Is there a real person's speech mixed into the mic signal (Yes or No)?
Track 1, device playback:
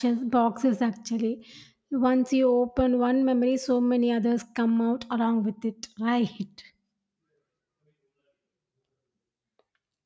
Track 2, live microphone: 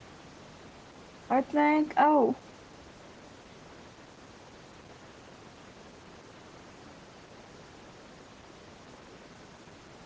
Yes